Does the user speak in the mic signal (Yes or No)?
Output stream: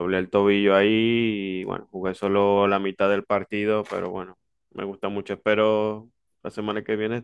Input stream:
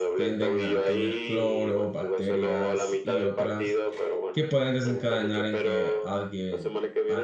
Yes